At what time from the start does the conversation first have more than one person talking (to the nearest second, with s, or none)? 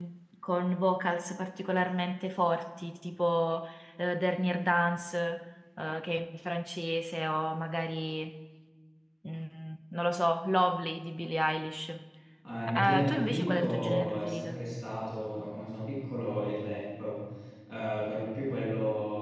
13 s